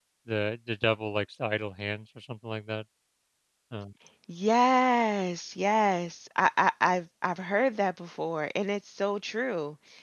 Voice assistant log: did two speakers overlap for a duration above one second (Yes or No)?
No